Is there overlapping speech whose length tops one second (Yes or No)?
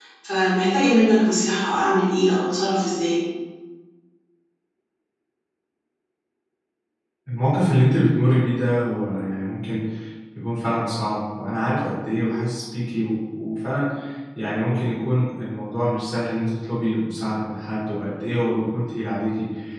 No